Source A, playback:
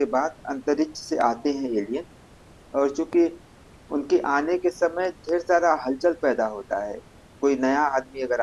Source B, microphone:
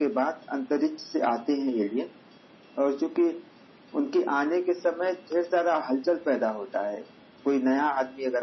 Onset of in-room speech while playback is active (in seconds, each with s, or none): none